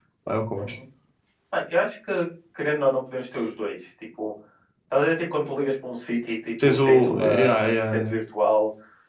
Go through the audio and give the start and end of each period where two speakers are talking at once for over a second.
6.6-8.1

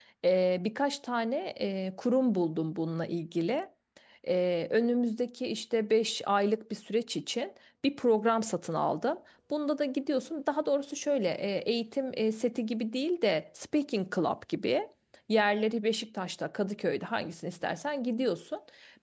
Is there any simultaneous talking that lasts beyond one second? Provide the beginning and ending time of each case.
none

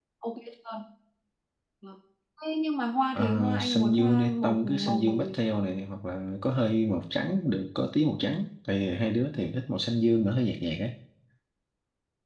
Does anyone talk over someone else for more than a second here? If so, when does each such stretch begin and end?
3.1-5.3

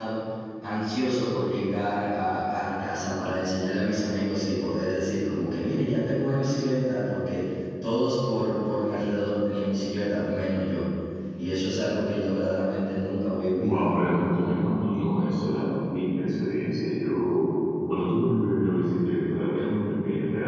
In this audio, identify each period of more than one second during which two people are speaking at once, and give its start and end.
none

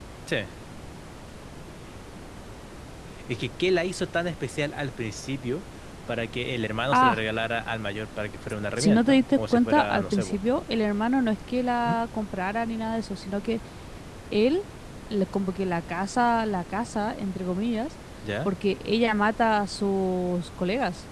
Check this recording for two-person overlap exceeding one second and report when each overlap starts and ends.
8.8-10.4

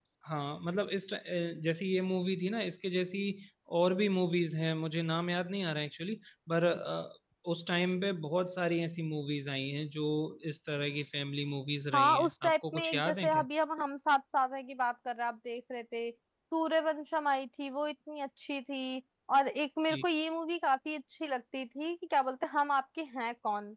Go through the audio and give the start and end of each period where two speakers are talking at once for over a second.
11.9-13.4

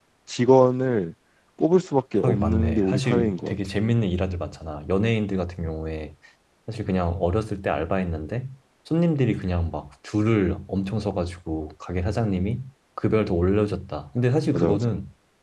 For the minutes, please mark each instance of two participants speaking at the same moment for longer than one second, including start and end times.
2.2-3.5

